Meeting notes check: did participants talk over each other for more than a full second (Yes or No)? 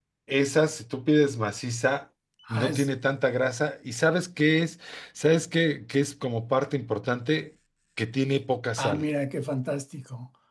No